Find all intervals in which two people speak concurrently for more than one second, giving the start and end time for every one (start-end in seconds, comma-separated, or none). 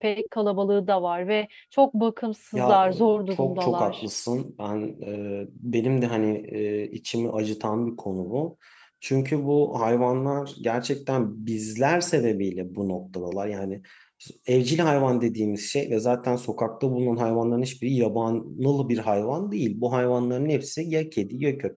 2.5-4.0